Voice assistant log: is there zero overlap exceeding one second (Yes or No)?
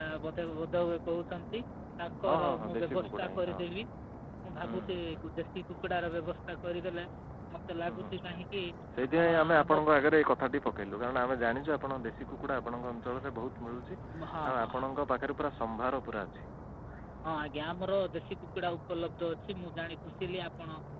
No